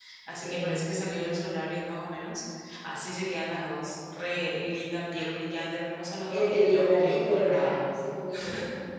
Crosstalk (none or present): present